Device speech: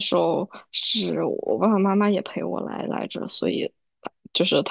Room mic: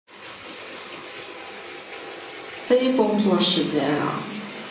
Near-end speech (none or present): present